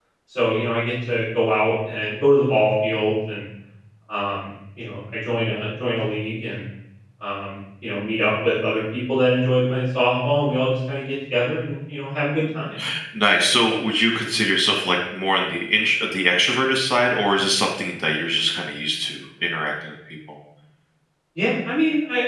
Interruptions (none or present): none